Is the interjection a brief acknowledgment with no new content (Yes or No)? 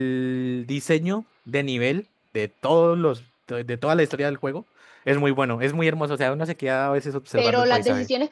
No